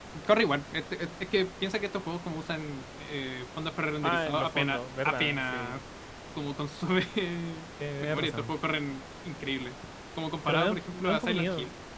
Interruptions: present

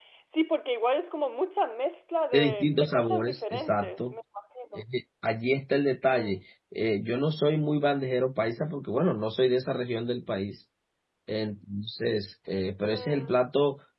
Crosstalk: present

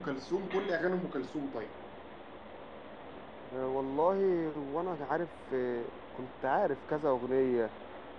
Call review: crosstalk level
none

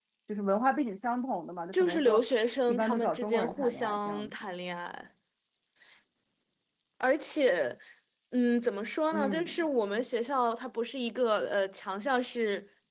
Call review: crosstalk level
present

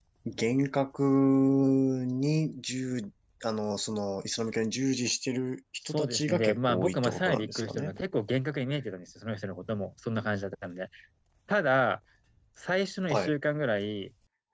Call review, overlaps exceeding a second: present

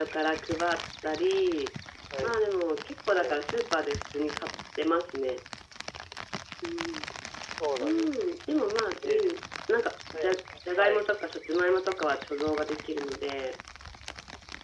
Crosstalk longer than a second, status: none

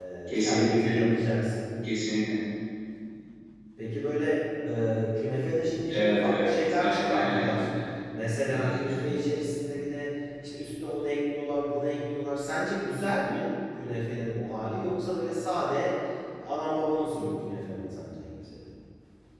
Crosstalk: present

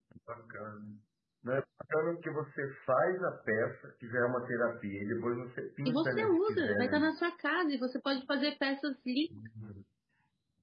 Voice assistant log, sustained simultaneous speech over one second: present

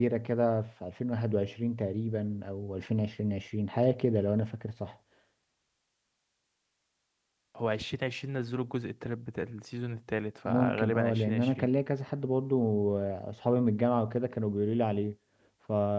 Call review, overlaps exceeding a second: present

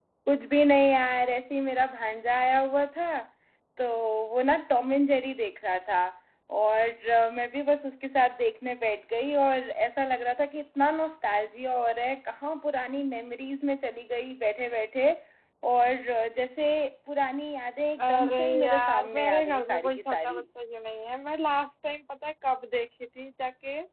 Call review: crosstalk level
present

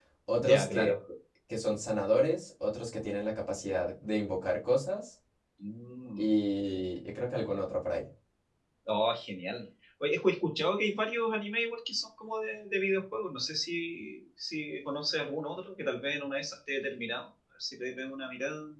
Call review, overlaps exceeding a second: none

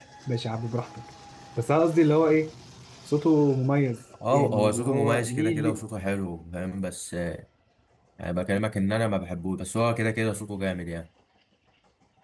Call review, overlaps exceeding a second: present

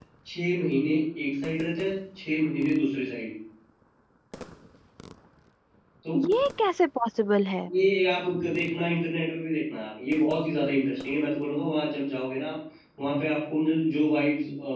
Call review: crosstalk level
none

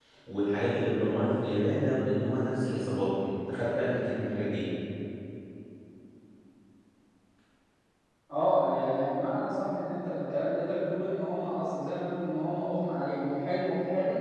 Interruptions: none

